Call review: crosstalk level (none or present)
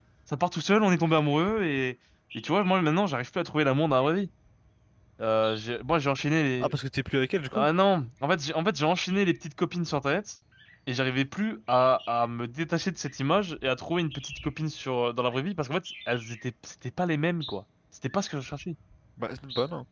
none